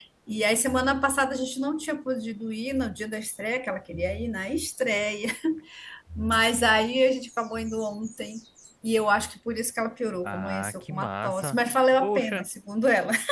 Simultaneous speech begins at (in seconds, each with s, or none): 10.2 s